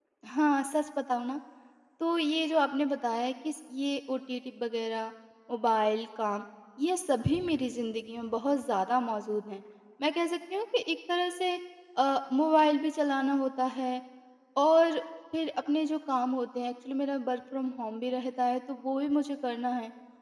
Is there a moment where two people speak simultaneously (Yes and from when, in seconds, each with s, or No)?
No